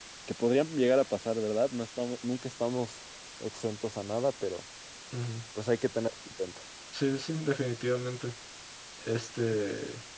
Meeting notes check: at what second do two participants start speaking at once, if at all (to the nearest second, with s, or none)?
none